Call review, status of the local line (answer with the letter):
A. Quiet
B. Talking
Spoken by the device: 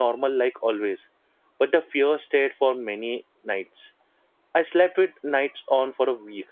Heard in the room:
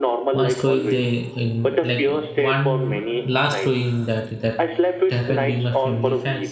B